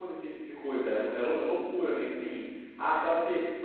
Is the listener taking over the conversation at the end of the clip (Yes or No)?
No